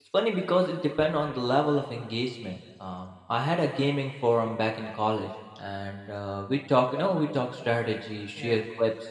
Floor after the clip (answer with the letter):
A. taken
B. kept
B